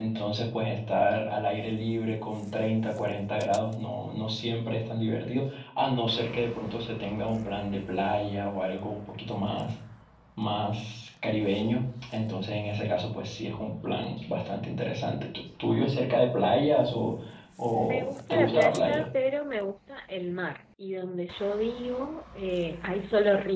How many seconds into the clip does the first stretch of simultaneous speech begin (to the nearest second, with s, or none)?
18 s